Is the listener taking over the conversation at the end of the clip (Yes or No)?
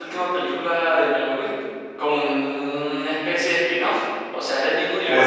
Yes